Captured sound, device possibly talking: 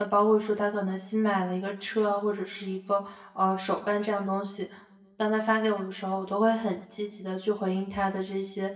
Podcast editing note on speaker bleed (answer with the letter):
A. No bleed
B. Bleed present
A